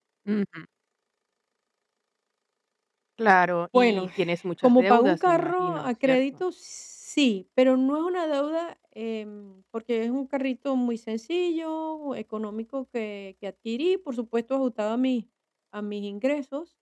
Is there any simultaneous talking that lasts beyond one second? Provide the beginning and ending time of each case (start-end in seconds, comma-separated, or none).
4.6-6.2